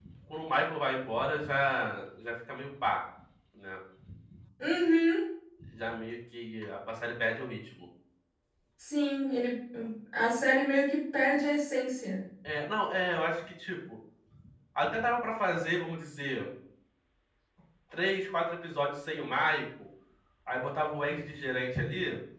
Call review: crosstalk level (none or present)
none